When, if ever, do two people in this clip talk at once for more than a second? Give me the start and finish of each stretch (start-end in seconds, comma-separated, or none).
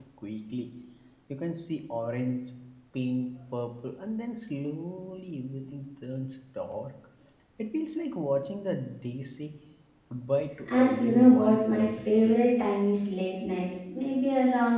10.8-12.3